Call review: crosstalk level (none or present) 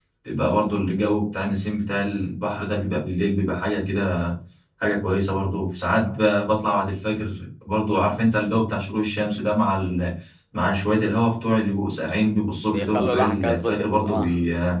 present